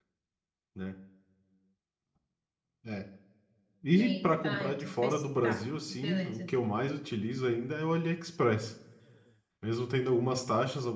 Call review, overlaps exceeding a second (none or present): present